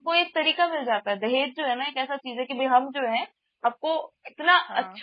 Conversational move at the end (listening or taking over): listening